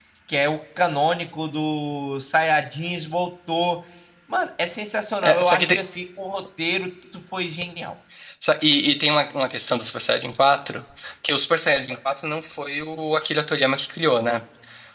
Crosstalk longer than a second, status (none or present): none